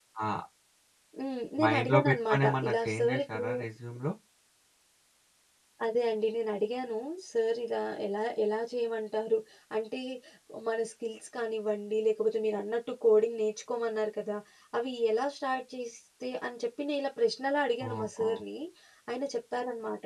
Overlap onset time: 2 s

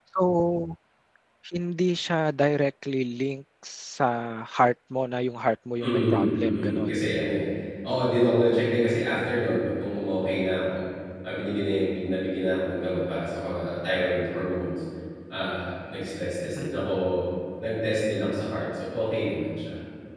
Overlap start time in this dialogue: 6 s

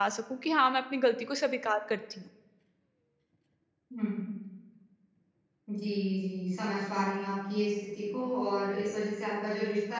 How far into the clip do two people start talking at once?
none

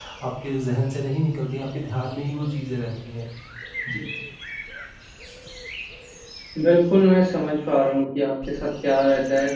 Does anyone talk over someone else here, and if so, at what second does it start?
none

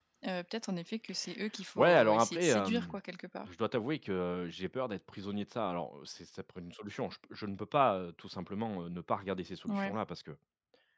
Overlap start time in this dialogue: 2 s

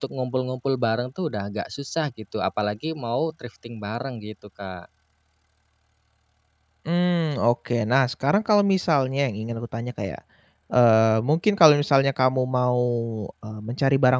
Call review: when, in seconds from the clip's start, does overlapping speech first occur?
none

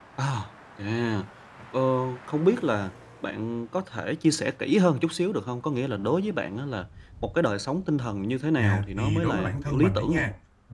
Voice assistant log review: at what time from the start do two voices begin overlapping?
9 s

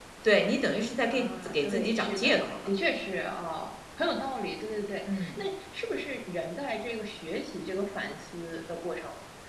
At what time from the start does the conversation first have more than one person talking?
1 s

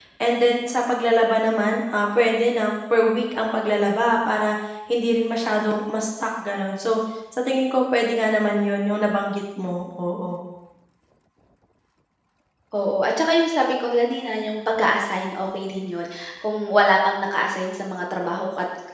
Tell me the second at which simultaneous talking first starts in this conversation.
none

